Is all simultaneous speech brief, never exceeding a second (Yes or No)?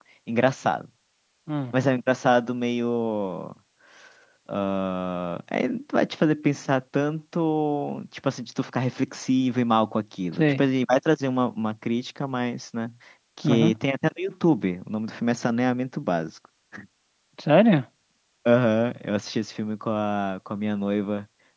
Yes